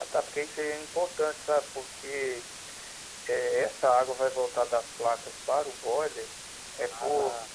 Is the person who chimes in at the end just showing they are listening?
Yes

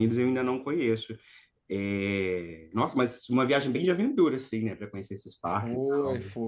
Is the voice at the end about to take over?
Yes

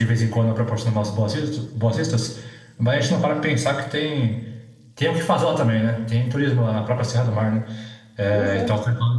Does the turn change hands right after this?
No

